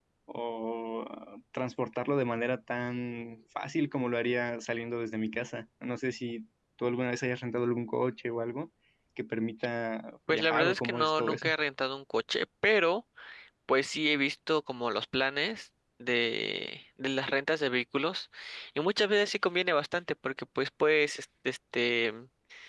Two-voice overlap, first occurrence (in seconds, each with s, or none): 10.3 s